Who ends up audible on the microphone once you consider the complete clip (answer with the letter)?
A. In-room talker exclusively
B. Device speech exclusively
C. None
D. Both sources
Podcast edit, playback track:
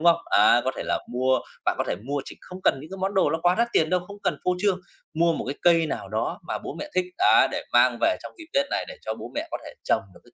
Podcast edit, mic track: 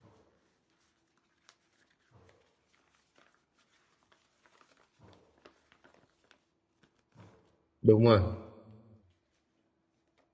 A